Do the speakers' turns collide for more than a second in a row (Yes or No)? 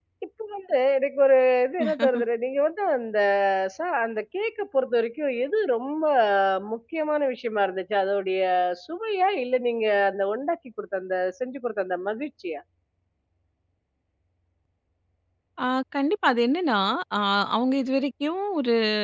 No